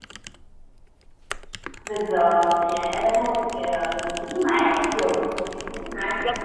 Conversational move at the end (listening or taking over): taking over